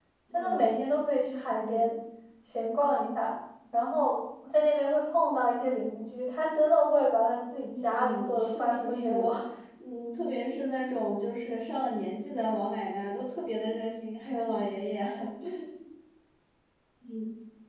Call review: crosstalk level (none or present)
present